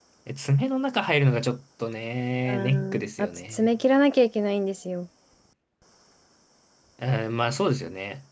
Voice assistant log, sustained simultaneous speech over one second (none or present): present